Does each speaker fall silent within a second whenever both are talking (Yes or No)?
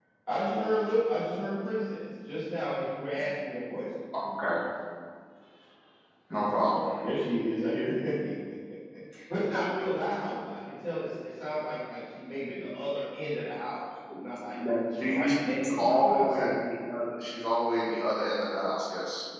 No